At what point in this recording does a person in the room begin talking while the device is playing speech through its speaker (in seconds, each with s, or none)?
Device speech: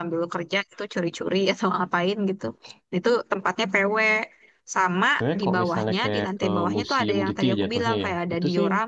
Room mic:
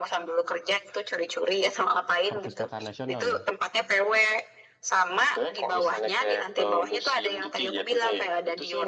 2.3 s